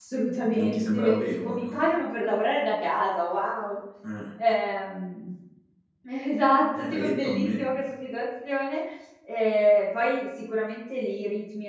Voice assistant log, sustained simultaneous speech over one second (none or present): present